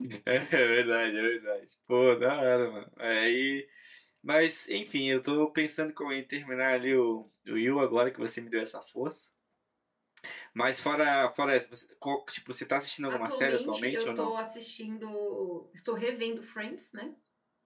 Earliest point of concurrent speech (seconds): 13.1 s

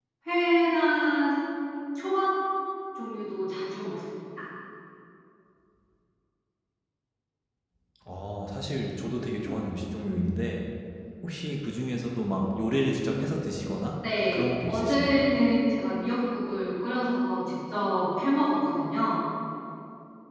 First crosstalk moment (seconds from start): 14.0 s

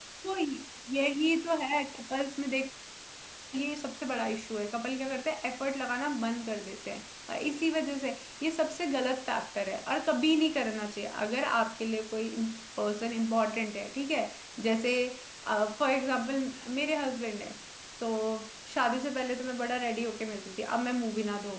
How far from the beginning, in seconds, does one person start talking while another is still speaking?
none

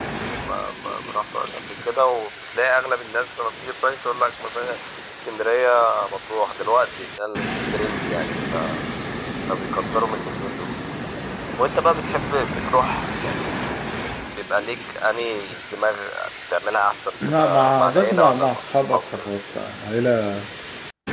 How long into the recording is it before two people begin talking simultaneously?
17.2 s

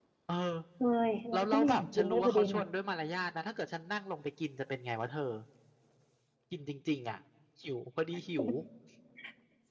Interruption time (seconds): 1.3 s

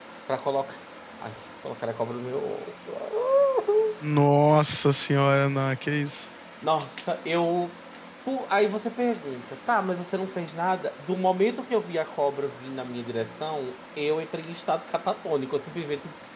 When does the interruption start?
none

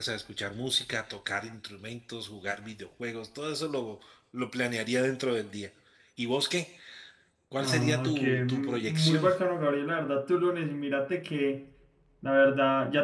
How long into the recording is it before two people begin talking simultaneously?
7.6 s

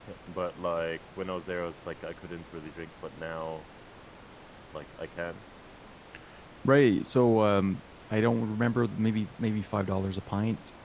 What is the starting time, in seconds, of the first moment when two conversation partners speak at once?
none

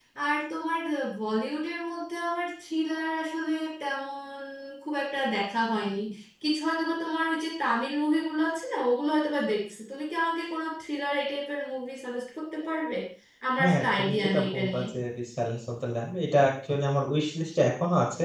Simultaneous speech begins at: 13.6 s

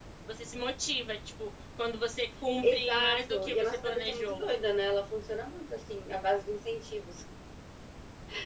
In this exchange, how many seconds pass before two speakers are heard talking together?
2.6 s

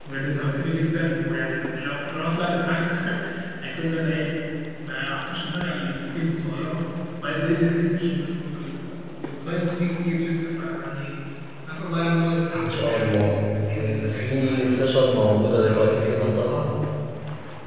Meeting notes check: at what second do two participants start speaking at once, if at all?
12.5 s

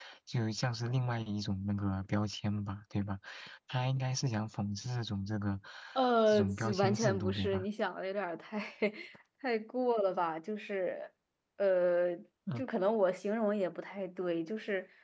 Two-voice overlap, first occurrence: 6.3 s

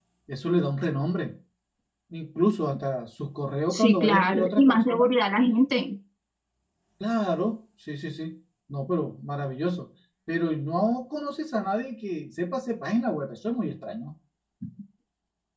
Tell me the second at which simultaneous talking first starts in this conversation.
3.7 s

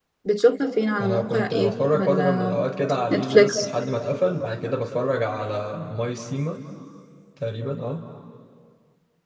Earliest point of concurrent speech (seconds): 1.0 s

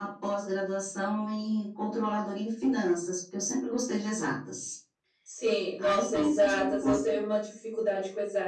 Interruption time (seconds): 5.8 s

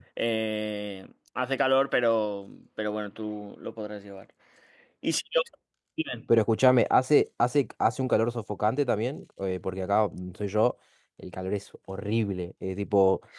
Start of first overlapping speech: none

